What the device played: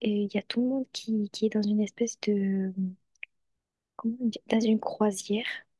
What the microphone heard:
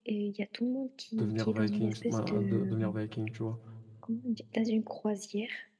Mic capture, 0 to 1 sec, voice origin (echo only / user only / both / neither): echo only